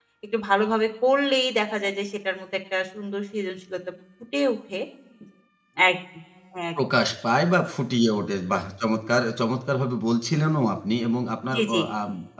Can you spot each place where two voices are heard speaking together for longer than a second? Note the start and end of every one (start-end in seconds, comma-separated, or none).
none